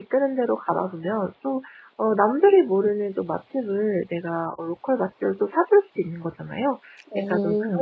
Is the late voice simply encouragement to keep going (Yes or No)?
Yes